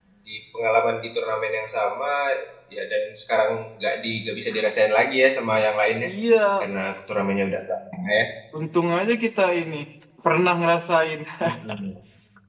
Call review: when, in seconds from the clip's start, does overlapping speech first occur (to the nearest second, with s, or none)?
none